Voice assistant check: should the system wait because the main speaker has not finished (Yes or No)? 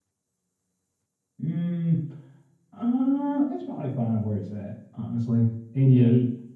Yes